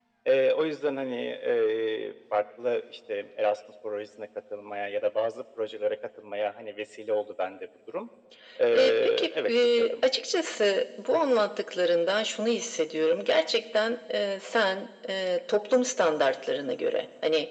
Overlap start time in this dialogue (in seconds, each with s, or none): 8.7 s